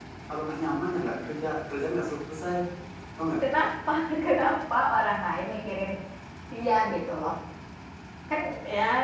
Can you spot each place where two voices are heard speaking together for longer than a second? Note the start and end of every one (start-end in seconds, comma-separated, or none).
none